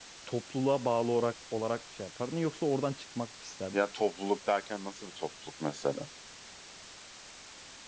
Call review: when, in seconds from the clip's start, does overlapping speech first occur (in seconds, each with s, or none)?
none